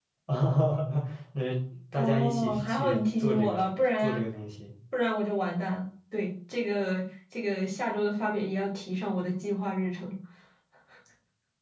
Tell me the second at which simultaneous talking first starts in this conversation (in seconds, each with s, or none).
2.0 s